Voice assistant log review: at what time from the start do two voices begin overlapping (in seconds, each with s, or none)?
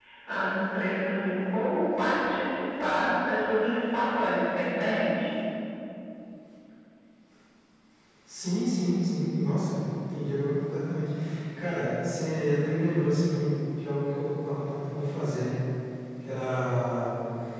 none